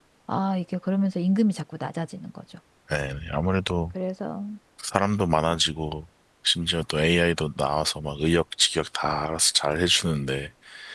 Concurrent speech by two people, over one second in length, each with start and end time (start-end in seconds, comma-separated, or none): none